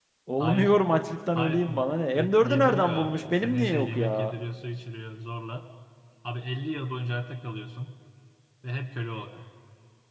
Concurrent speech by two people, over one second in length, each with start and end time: 2.1-4.3

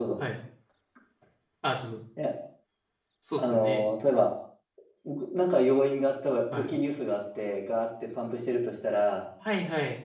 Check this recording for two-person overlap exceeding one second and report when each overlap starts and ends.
none

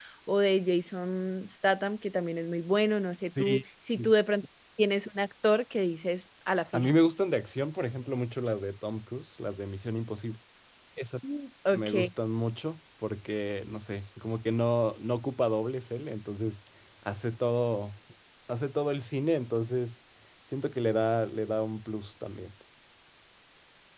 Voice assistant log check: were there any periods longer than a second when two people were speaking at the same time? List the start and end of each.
none

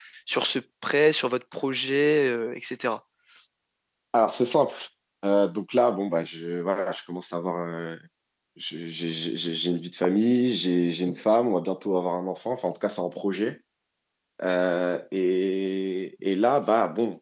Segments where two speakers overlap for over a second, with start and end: none

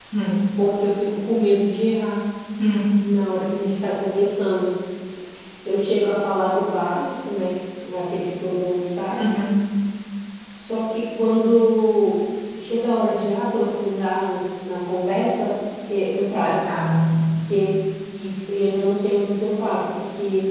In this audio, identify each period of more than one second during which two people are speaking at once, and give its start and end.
none

